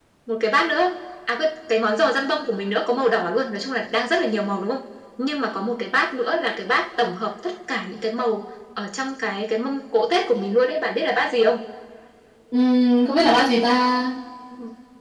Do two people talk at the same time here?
No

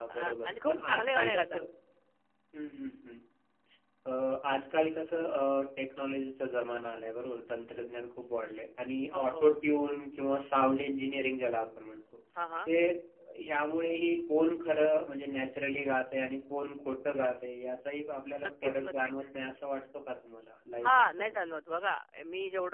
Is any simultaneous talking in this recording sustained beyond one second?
Yes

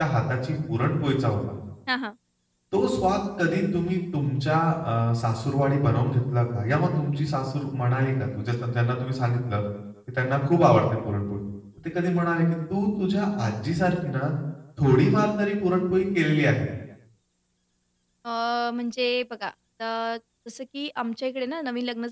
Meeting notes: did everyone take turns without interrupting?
Yes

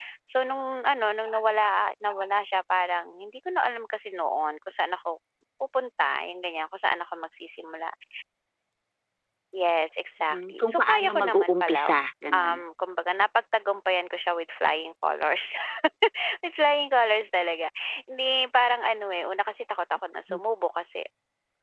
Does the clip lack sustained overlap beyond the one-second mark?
No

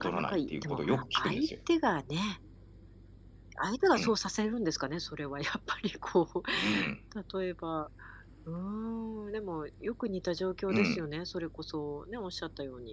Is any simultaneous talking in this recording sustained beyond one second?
Yes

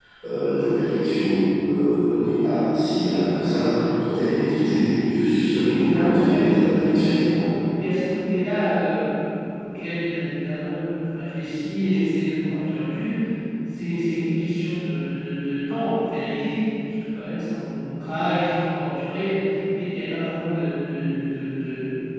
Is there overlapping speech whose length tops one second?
Yes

